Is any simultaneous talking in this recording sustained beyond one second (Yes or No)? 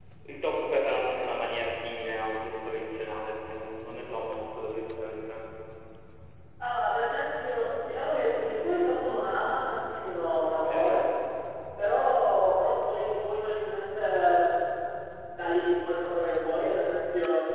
No